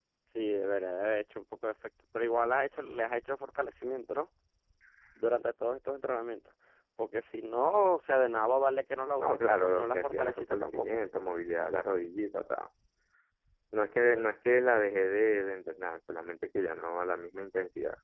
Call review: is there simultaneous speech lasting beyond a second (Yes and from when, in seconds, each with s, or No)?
Yes, from 9.2 s